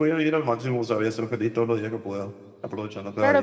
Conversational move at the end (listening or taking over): taking over